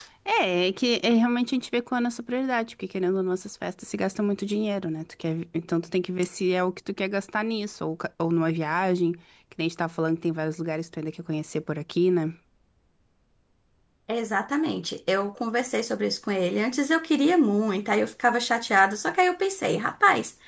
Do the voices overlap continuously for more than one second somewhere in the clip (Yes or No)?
No